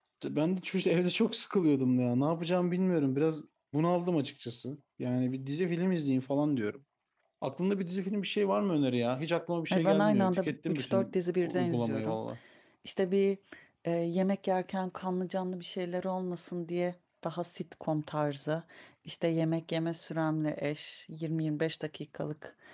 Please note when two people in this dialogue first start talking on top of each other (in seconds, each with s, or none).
9.7 s